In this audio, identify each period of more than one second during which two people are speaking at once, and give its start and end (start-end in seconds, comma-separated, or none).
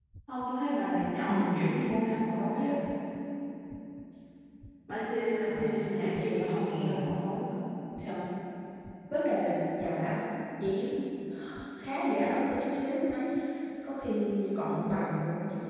5.5-7.1